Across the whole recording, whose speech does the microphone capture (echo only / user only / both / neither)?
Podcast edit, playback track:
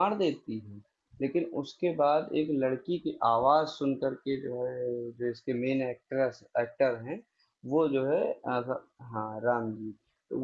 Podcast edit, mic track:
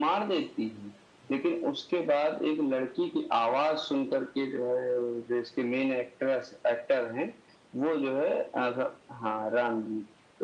echo only